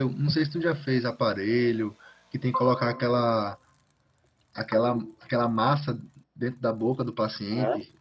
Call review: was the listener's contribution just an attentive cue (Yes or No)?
No